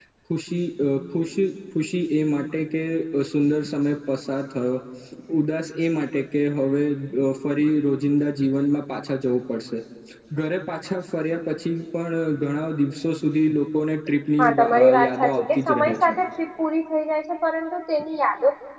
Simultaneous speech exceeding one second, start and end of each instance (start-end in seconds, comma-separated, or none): 14.4-16.2